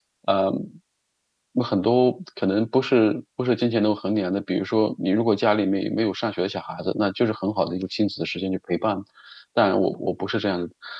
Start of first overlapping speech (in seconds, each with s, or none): none